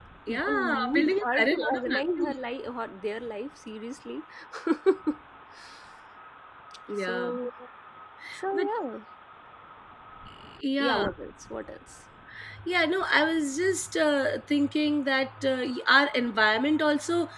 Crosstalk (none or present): present